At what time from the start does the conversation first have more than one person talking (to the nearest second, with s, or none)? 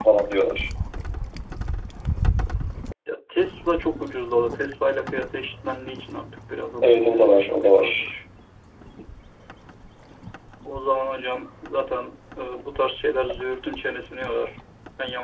7 s